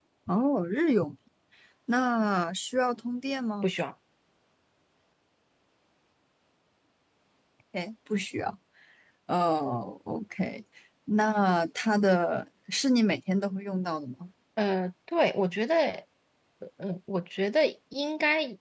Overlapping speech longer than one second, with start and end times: none

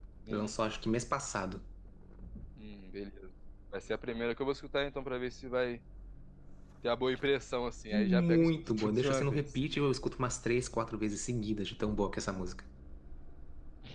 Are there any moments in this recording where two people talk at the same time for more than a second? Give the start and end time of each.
7.9-9.6

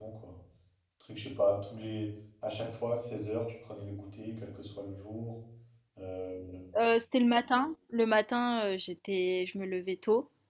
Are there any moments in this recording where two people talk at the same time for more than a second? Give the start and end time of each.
none

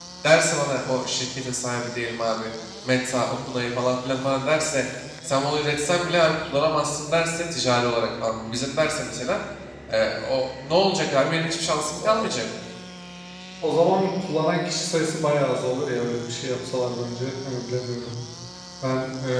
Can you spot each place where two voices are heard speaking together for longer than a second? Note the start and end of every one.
none

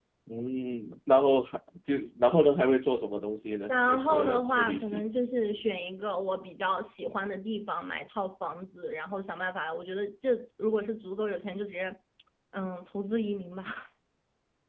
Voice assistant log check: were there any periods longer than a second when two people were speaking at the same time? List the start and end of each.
3.7-5.0

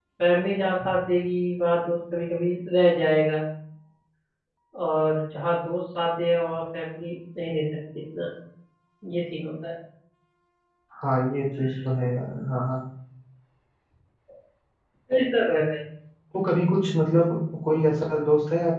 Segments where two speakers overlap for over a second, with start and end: none

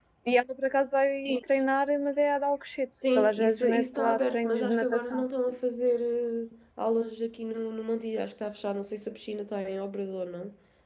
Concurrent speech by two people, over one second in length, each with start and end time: 3.2-5.2

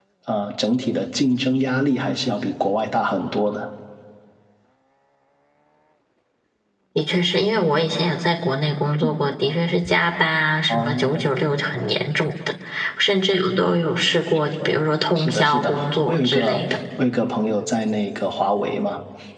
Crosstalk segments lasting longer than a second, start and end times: 15.2-16.6

